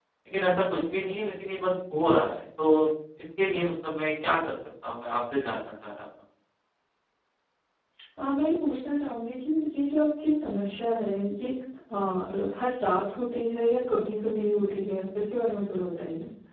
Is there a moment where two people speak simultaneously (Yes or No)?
No